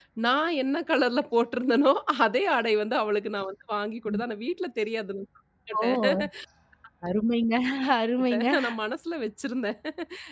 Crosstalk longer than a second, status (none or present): none